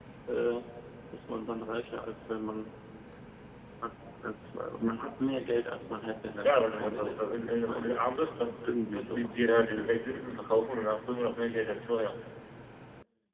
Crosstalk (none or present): present